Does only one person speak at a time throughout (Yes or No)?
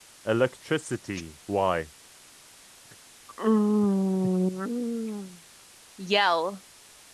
Yes